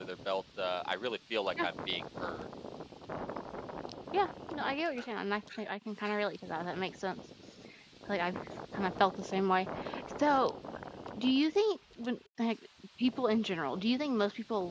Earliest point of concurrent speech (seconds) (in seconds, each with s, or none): none